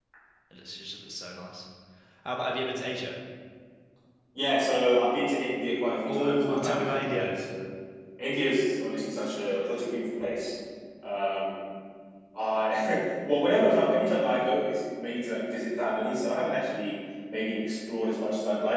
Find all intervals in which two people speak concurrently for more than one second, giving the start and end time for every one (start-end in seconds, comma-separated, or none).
6.1-7.3